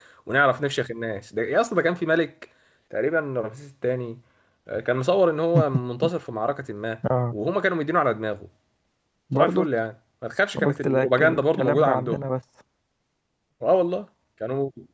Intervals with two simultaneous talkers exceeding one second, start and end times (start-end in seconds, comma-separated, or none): 10.6-12.2